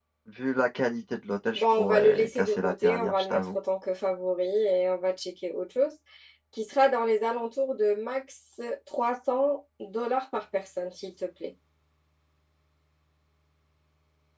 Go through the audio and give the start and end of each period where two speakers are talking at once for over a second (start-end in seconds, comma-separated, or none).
1.5-3.5